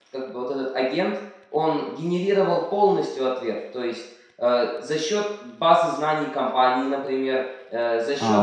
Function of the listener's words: taking over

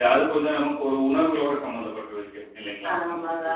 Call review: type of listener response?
taking over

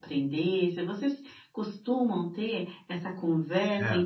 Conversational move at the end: listening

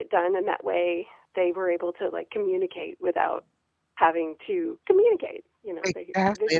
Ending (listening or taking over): taking over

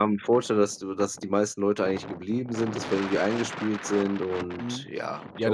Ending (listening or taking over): taking over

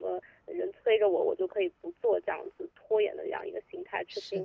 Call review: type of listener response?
taking over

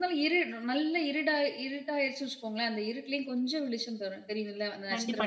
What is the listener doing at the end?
taking over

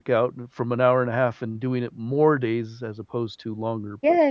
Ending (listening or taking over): taking over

